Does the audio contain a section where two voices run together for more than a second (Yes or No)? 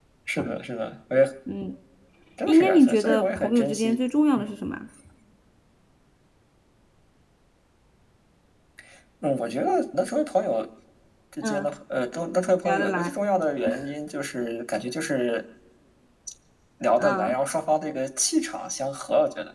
Yes